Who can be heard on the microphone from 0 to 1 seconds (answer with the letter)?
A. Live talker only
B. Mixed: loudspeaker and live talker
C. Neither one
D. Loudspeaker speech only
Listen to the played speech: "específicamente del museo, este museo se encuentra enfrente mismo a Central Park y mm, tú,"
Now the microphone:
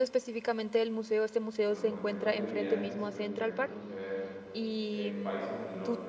D